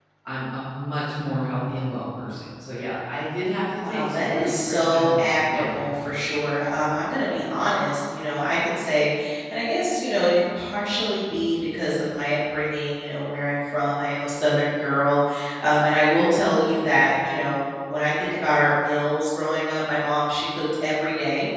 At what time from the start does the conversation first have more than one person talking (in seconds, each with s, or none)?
3.8 s